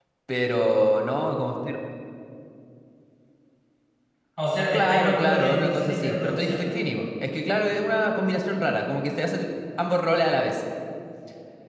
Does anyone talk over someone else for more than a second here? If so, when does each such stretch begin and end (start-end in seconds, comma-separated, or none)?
4.7-6.5